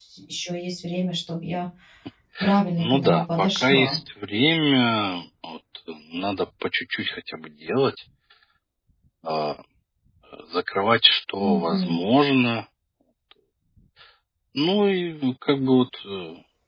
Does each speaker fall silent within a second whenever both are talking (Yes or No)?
No